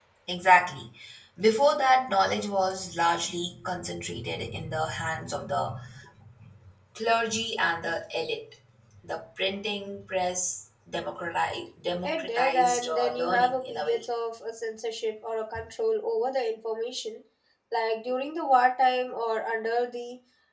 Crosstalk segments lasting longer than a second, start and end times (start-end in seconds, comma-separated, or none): 12.0-14.0